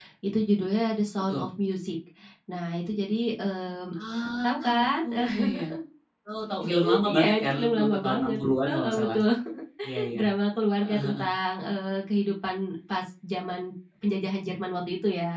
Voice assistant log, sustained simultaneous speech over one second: present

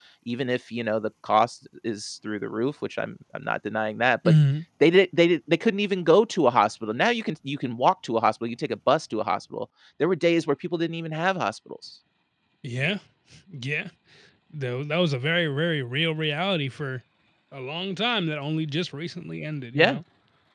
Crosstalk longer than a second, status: none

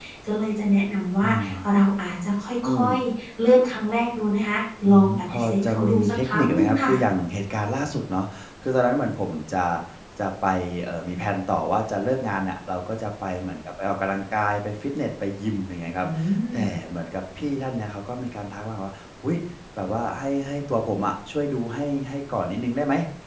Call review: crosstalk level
present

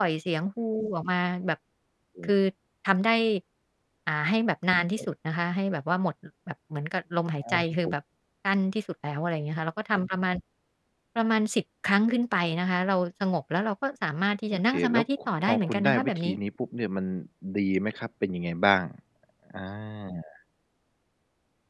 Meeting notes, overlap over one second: present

